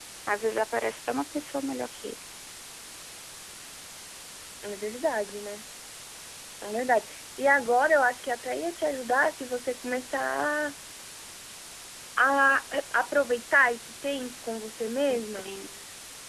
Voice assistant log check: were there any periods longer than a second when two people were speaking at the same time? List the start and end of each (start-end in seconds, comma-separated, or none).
none